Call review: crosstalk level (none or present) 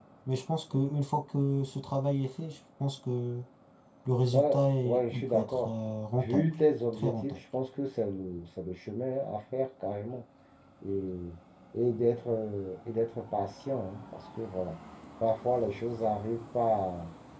present